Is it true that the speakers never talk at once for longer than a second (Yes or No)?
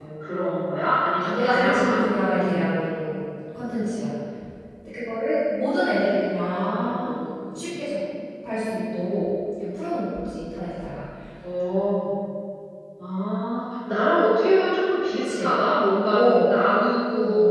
No